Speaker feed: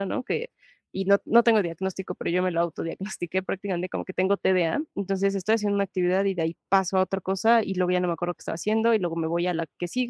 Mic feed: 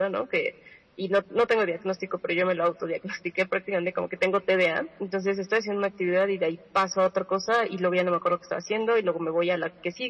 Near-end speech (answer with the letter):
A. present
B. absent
B